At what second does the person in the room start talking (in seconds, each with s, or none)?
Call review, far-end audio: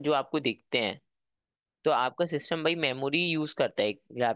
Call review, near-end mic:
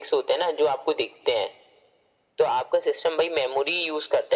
none